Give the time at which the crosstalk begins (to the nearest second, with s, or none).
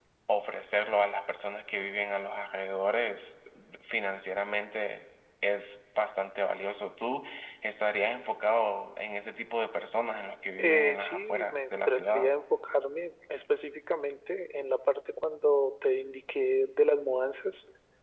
11 s